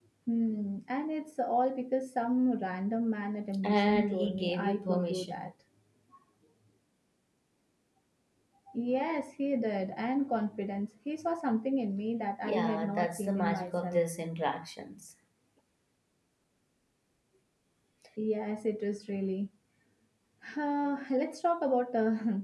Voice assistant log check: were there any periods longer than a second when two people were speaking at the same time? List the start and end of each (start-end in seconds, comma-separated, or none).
3.6-5.5, 12.4-14.0